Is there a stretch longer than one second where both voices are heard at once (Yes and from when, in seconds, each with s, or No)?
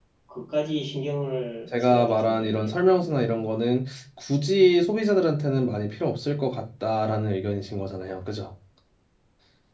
Yes, from 1.7 s